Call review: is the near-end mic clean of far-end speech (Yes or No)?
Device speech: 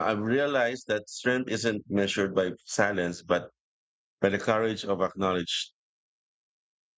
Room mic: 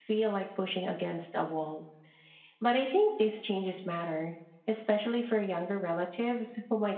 Yes